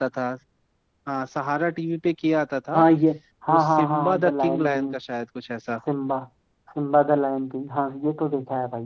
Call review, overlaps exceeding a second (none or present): present